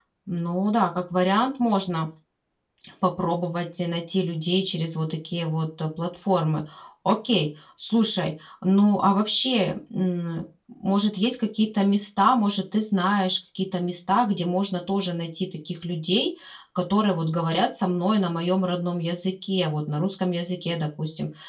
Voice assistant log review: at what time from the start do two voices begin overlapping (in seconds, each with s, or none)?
none